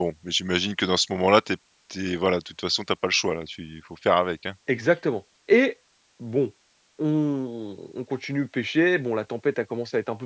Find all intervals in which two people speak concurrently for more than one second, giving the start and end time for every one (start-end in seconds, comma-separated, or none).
none